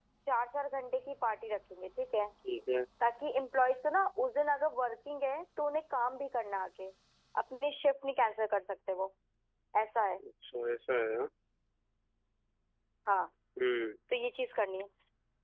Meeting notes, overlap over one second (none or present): none